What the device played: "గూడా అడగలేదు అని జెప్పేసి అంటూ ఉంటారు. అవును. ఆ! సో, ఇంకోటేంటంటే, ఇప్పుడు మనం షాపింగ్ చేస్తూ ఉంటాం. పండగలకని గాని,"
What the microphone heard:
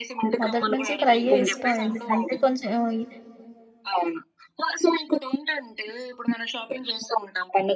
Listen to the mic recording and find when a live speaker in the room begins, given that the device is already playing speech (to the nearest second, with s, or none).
0 s